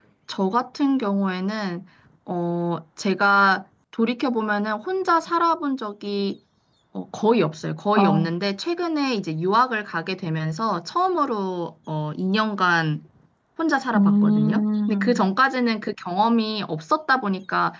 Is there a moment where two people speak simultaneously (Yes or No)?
Yes